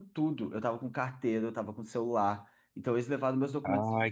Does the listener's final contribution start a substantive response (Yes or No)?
Yes